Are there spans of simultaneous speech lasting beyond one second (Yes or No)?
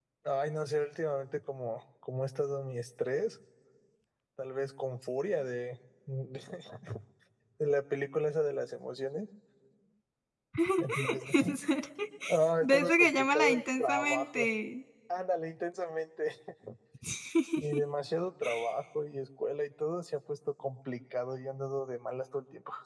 Yes